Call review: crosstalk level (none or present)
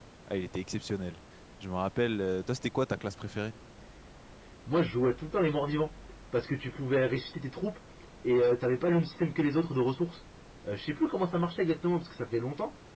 none